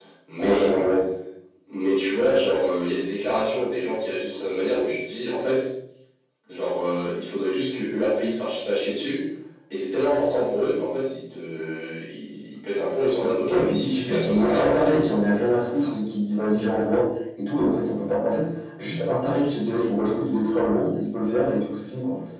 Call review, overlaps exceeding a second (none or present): present